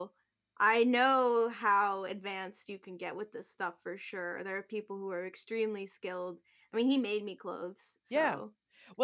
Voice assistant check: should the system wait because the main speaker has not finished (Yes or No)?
No